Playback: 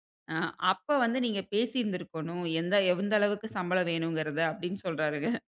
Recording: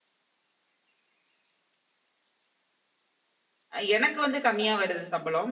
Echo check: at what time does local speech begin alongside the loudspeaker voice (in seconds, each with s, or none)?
3.8 s